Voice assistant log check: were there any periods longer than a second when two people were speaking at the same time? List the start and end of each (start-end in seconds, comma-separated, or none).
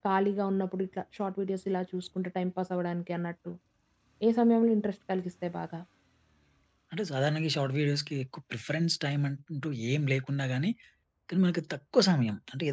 none